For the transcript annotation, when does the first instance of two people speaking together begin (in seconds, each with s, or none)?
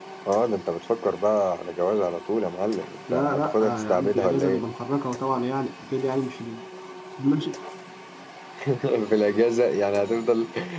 3.1 s